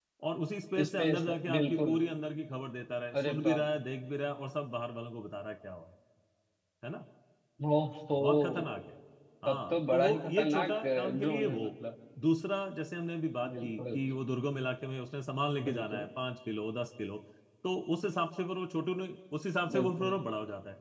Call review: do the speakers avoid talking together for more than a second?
No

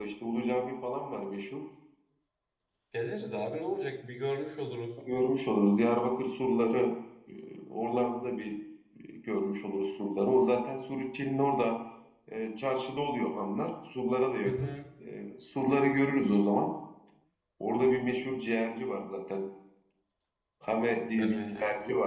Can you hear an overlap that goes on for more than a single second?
No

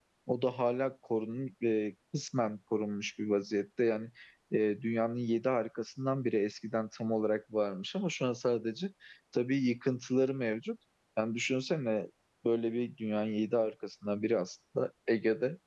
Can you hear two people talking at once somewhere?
No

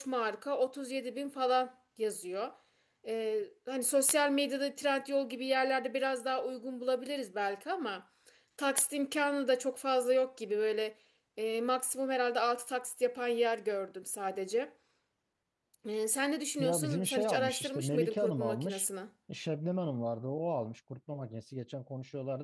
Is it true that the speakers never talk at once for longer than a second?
No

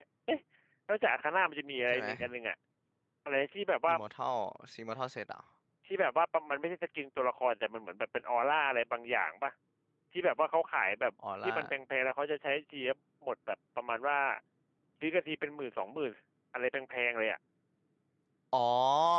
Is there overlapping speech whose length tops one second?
No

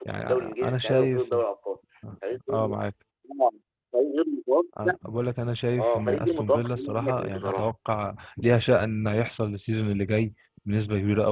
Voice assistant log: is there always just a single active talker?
No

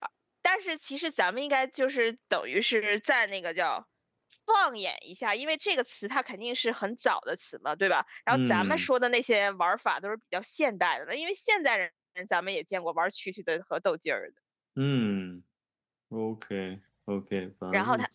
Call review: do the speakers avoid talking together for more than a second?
Yes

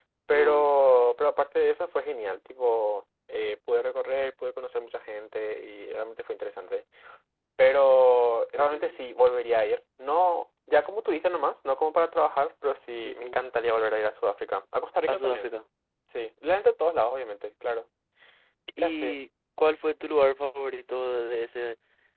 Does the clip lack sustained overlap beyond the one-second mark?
Yes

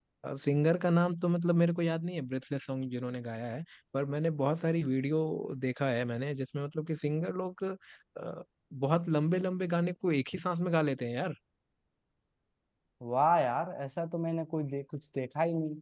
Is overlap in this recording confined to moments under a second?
Yes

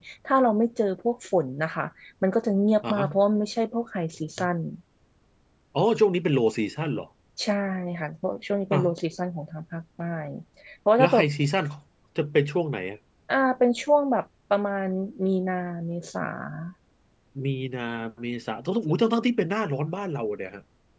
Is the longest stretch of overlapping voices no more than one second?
Yes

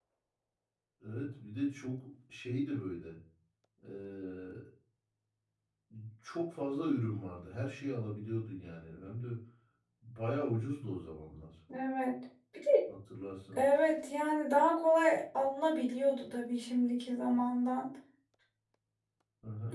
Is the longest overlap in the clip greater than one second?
No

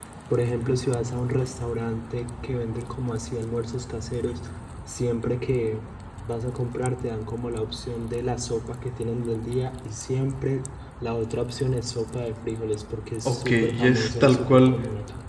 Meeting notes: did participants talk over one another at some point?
Yes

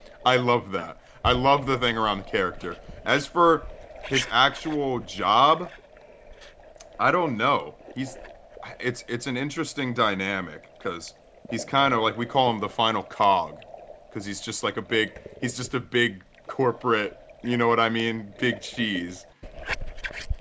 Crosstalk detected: No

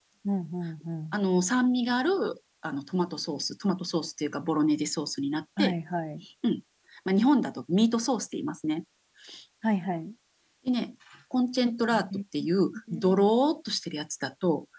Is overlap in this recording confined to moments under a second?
Yes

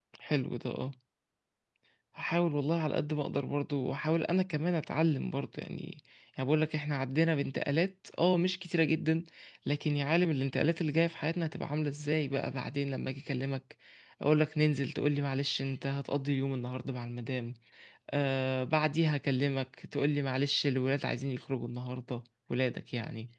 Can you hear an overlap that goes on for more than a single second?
No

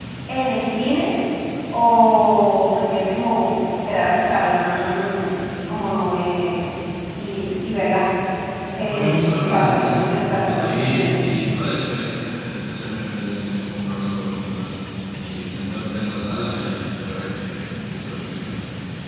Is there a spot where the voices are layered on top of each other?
Yes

